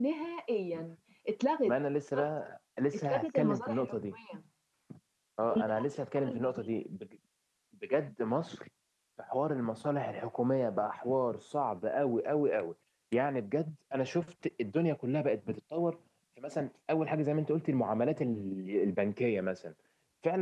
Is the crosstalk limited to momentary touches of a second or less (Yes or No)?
No